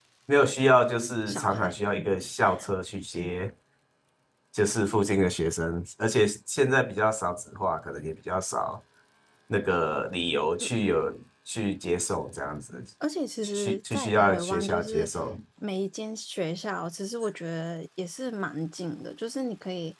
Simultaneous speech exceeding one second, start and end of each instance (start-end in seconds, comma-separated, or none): 13.4-15.1